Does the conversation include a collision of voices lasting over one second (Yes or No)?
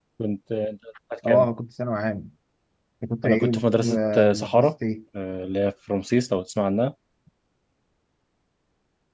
Yes